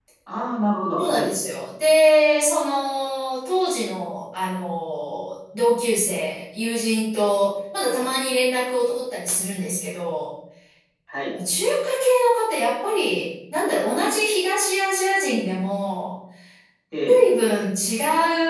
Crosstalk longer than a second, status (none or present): none